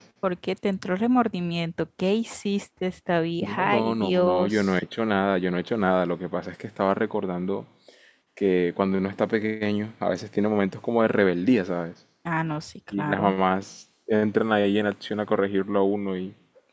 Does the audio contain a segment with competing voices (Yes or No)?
Yes